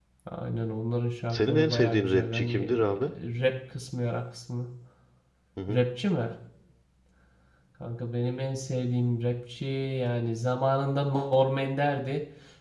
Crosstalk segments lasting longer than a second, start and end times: 1.3-2.8

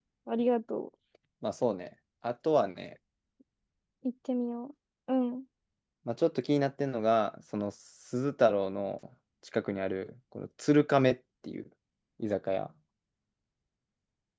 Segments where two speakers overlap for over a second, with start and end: none

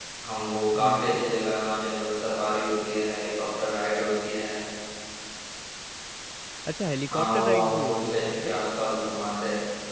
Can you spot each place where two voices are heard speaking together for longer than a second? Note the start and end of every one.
7.1-8.5

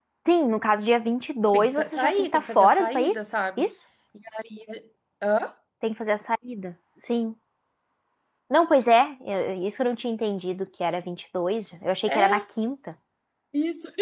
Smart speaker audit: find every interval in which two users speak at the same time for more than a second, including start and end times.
1.5-3.2

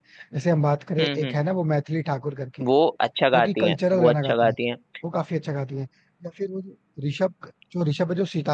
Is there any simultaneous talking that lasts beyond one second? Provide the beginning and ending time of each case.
3.3-4.6

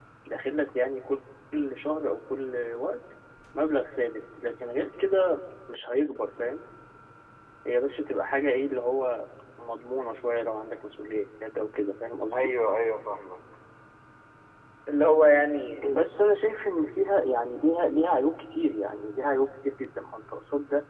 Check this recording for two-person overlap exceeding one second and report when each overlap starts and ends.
none

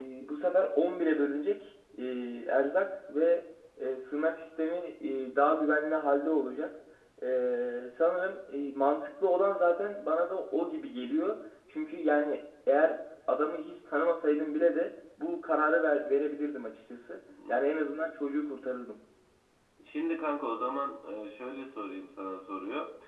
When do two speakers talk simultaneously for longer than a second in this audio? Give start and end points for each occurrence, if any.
none

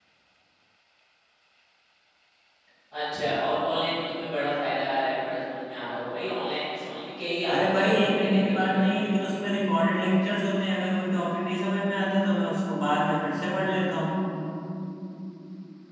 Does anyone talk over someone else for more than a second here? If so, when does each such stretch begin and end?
7.5-8.8

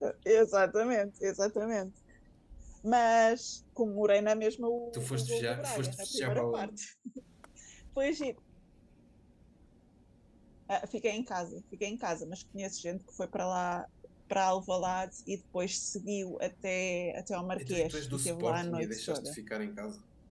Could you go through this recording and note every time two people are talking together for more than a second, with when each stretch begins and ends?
4.9-6.7, 17.6-19.4

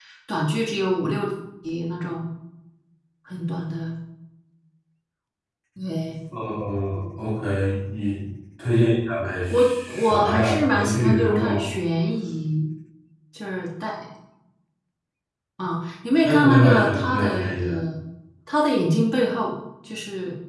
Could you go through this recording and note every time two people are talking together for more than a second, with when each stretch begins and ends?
9.5-11.6, 16.2-17.8

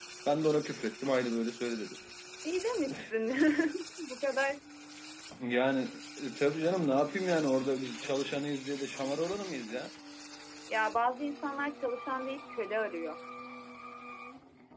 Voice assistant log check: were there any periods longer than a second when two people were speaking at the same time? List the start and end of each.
none

